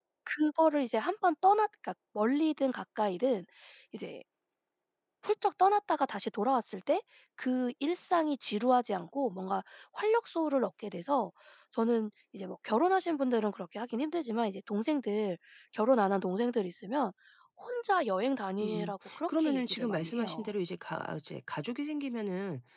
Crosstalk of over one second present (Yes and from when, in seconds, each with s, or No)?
Yes, from 18.6 s